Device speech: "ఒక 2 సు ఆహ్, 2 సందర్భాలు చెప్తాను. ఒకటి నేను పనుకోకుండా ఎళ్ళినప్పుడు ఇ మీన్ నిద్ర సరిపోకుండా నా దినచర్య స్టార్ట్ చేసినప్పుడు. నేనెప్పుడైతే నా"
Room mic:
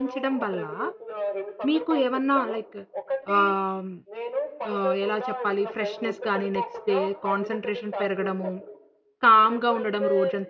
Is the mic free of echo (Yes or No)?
No